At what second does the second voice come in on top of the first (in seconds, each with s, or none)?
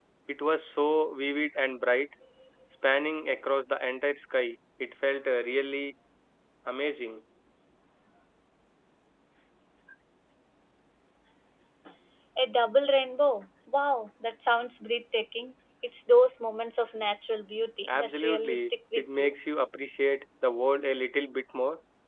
17.9 s